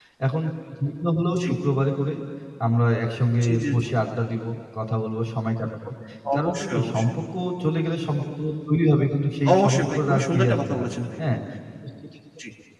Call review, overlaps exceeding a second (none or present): present